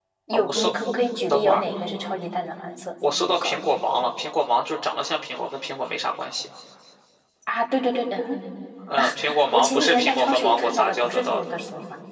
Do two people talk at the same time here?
Yes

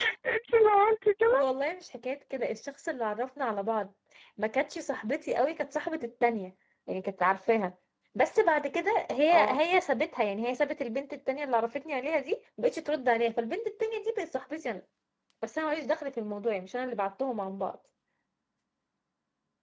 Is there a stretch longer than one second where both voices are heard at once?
No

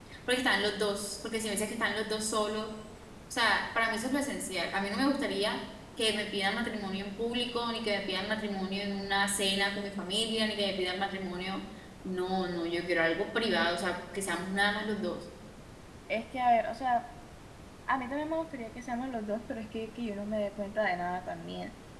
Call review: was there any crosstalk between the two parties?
No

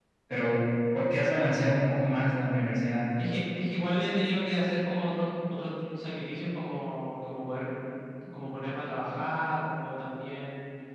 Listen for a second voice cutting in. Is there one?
No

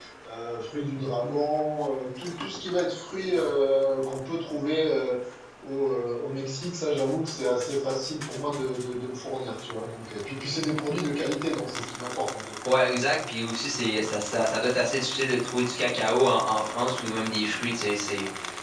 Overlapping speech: No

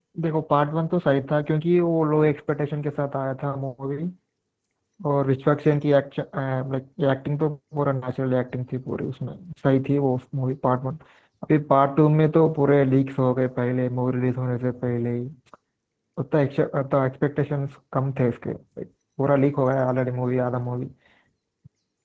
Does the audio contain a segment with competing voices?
No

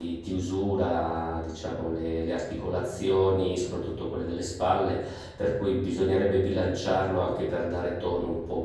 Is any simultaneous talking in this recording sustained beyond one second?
No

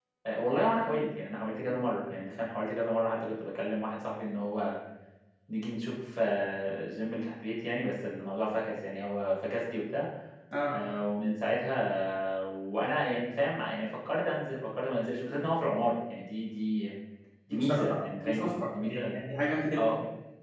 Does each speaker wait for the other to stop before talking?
No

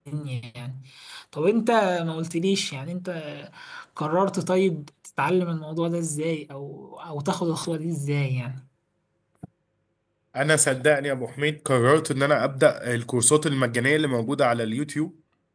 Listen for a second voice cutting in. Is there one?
No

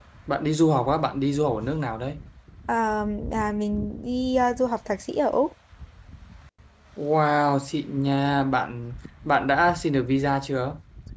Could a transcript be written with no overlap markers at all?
Yes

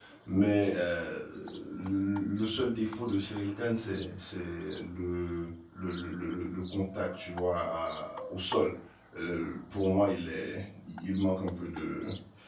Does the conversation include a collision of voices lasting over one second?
No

